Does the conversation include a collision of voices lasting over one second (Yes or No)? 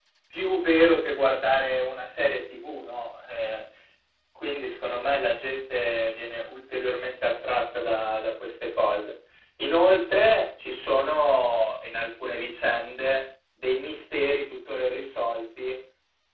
No